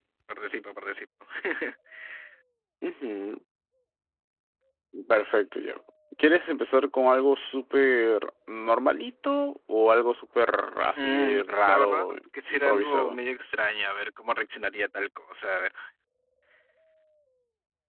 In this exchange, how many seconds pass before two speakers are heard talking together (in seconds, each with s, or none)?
10.9 s